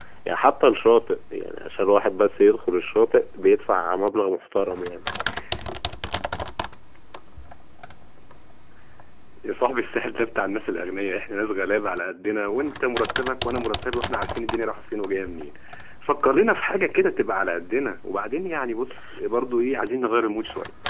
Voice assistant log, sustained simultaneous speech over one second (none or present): none